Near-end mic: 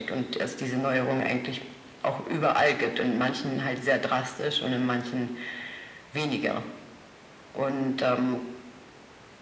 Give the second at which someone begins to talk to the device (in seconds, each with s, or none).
none